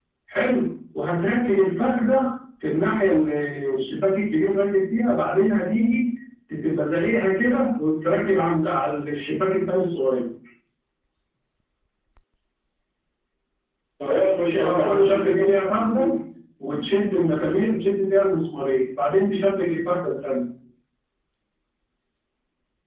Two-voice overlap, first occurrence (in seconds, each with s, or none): 14.6 s